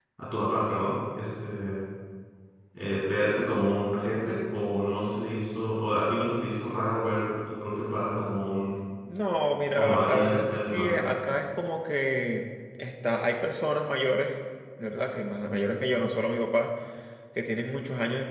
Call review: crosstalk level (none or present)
present